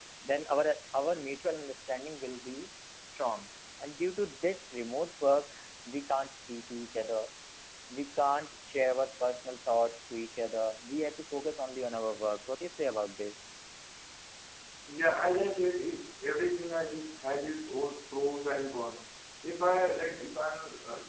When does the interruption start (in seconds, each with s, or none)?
none